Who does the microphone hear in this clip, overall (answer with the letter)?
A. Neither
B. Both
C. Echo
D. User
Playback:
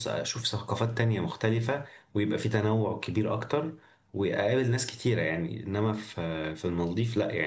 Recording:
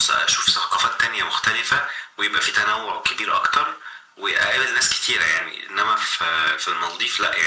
C